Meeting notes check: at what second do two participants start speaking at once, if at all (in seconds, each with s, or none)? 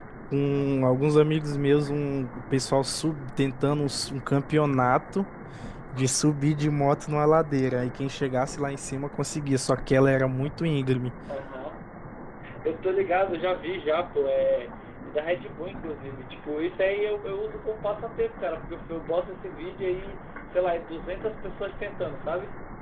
none